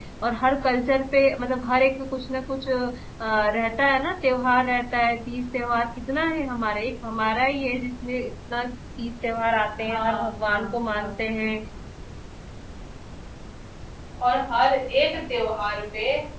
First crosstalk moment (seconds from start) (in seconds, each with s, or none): 9.8 s